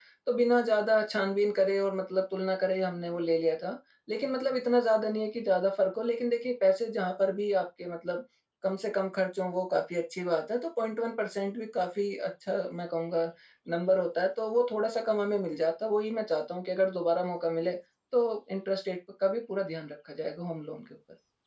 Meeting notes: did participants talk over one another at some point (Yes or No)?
No